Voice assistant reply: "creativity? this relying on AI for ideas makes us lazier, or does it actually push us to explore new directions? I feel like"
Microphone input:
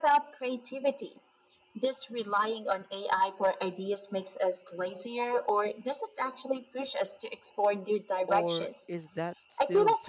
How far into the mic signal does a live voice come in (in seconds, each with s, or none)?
8.2 s